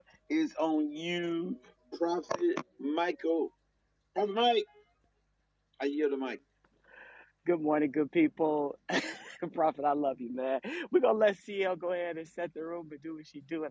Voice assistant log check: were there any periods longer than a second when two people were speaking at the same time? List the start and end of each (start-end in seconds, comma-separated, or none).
none